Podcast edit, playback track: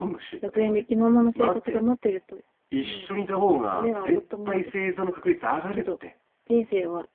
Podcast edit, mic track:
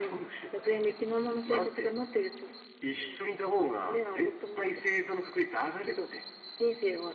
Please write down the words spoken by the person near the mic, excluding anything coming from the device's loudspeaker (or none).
none